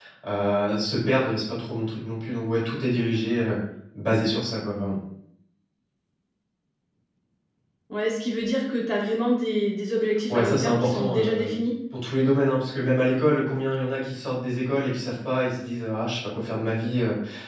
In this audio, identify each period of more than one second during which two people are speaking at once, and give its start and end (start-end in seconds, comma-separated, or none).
10.3-11.6